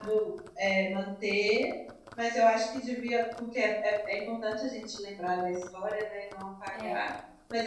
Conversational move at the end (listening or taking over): listening